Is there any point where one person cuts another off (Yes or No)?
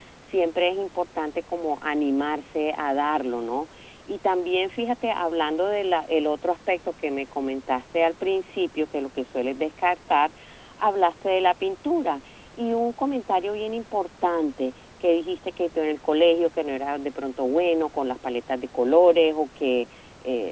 No